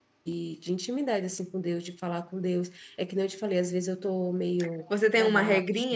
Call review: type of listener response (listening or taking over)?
taking over